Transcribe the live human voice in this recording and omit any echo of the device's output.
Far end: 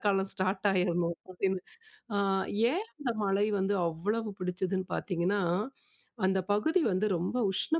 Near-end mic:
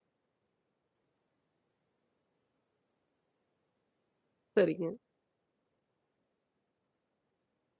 சரிங்க.

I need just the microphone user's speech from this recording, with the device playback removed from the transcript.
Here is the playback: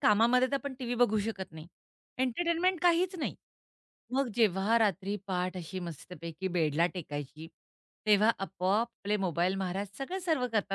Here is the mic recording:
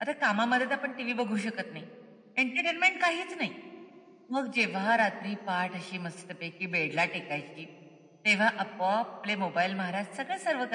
none

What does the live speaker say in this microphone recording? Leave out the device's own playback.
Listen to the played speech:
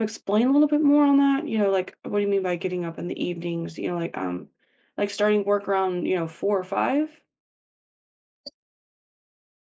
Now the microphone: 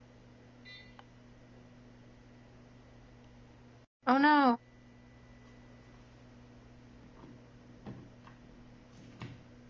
Oh no.

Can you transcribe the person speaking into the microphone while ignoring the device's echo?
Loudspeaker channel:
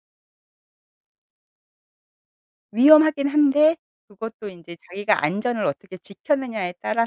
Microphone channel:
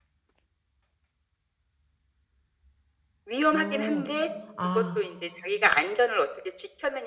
어. 아.

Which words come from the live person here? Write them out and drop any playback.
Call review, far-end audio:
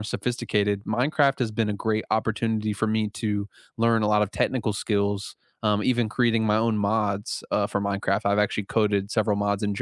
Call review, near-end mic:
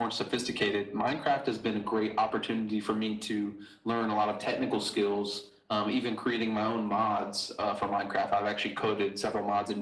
none

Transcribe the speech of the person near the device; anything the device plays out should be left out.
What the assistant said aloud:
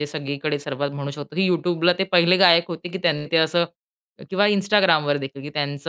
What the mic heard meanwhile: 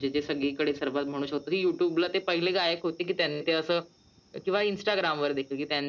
none

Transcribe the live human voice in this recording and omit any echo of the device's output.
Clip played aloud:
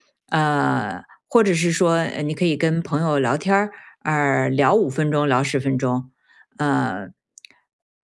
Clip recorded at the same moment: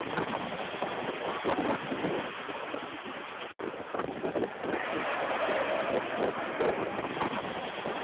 none

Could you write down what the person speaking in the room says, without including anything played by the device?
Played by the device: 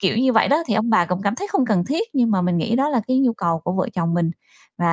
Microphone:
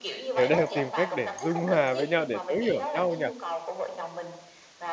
đều đang tìm cách để dung hòa với nhau, để thấu hiểu nhau nhỉ?

